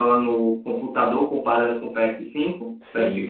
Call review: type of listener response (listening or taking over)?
taking over